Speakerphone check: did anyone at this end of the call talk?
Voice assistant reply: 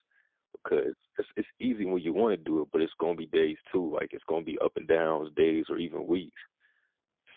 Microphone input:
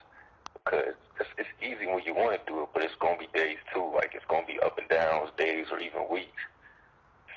No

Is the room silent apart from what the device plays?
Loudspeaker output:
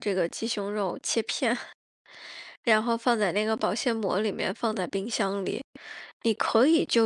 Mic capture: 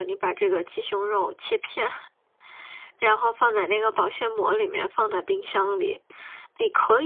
Yes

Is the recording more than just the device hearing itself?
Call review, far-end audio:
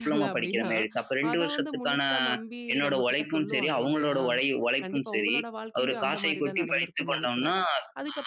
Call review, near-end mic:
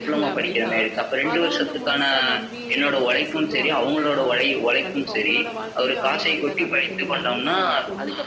Yes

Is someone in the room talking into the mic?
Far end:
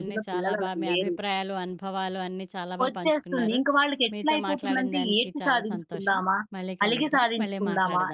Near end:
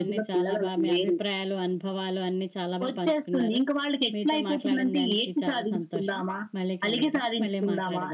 No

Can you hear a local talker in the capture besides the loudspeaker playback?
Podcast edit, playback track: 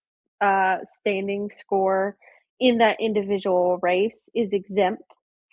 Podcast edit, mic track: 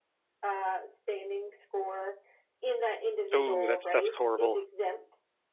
Yes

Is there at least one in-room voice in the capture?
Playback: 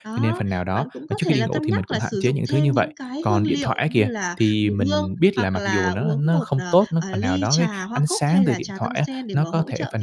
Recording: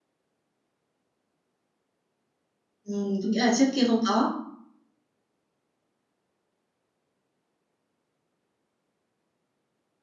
Yes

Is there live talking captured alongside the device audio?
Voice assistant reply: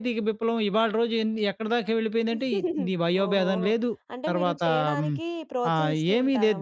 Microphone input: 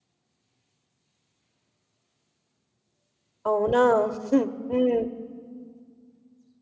Yes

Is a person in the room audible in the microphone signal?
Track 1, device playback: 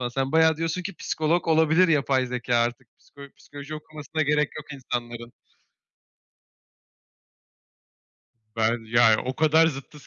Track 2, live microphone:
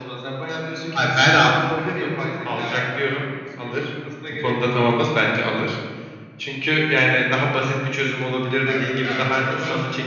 Yes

